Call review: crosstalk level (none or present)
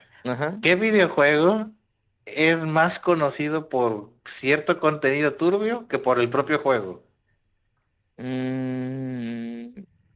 none